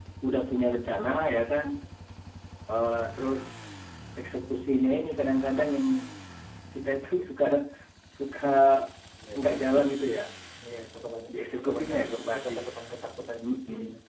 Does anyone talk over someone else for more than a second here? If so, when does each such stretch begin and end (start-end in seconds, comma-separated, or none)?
11.3-12.5